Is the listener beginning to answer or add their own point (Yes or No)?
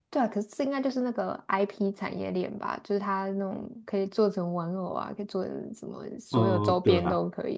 Yes